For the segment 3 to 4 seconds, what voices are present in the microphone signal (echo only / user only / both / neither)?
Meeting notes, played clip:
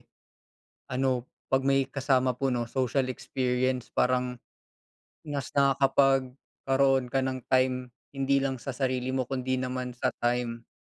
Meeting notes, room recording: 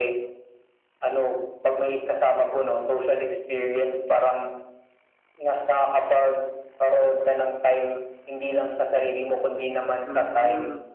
echo only